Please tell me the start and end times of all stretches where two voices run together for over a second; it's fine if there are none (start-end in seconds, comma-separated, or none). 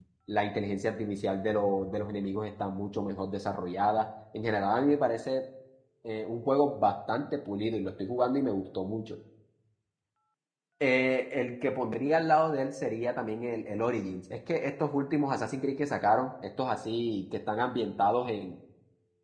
none